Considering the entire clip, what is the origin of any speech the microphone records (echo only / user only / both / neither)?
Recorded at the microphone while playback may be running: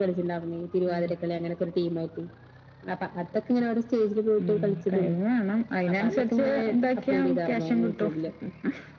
echo only